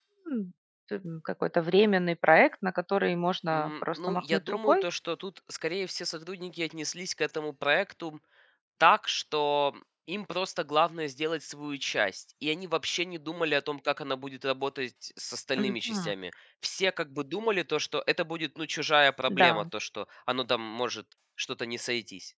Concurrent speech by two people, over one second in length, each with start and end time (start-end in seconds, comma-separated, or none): 3.5-4.8